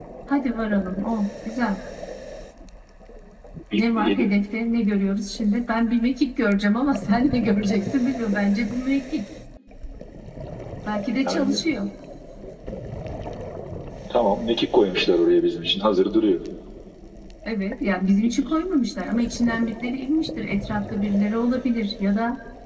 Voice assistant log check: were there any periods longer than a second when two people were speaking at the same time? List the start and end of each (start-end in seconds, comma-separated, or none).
none